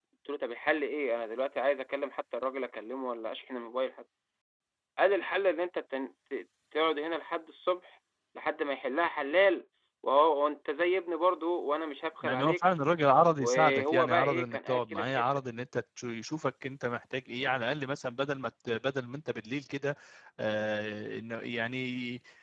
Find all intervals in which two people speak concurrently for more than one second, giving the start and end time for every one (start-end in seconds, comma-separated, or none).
13.4-15.2